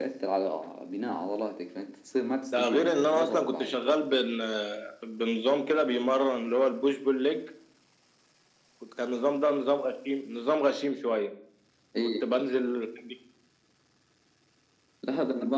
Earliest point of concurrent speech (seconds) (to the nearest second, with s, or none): 3 s